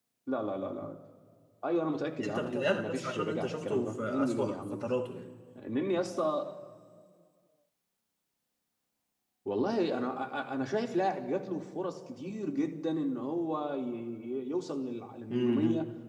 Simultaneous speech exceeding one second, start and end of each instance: 2.2-4.8

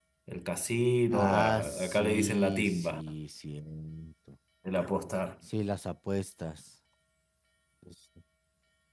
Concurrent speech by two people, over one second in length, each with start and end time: 1.1-3.0

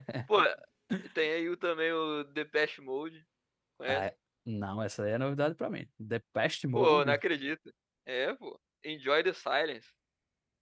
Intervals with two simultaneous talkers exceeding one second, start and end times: none

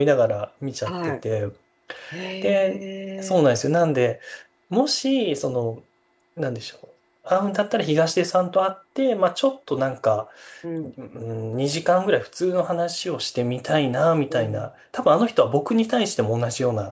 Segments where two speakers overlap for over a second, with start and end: none

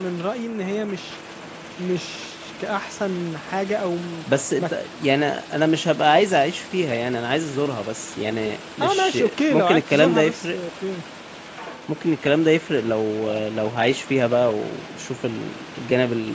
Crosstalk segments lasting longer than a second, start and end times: 8.8-10.6

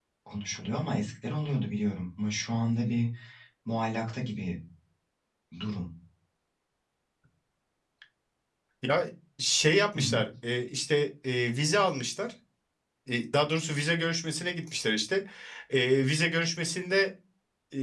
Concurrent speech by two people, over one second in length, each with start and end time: none

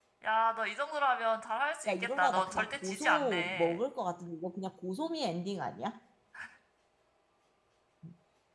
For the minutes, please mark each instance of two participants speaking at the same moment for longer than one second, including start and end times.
1.9-3.8

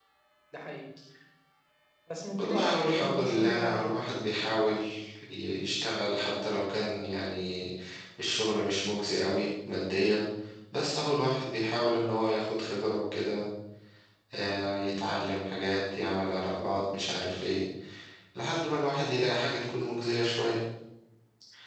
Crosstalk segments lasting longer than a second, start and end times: 2.4-4.0

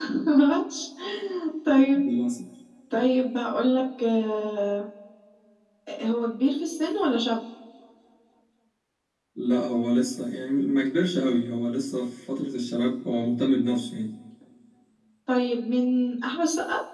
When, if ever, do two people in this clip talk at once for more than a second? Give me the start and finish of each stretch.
none

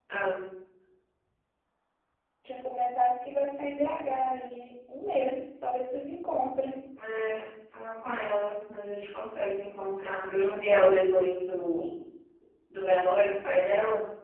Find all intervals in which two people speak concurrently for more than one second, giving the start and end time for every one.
none

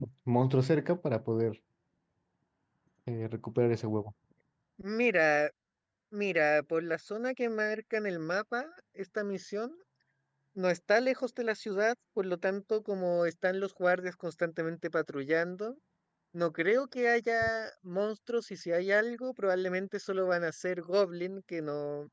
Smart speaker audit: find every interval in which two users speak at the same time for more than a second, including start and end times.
none

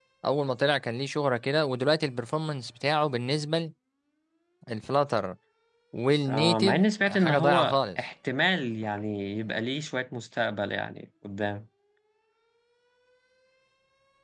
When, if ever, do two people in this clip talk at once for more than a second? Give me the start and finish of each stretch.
6.3-8.0

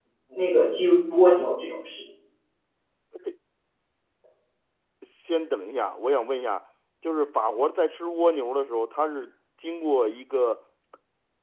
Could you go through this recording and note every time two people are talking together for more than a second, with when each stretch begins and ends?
none

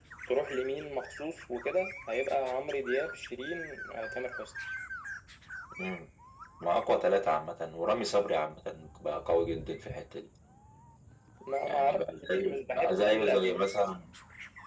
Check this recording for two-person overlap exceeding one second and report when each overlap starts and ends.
11.6-14.0

